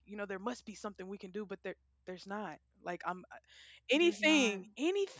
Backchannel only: Yes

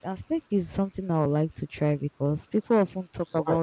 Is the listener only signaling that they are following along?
Yes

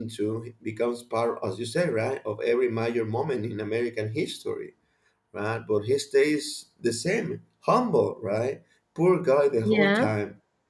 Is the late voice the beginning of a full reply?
No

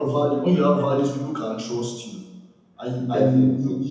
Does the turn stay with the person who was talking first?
Yes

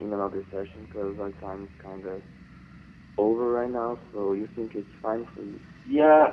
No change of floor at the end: No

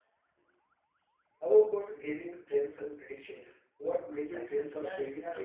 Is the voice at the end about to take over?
Yes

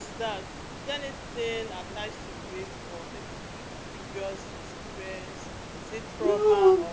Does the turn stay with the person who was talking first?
No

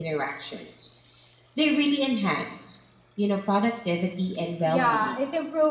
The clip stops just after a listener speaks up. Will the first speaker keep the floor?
No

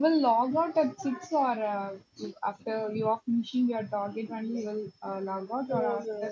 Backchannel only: No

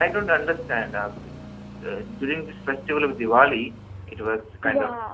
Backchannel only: Yes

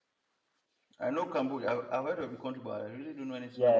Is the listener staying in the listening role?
No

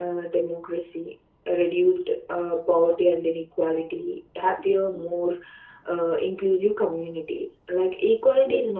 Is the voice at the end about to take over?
No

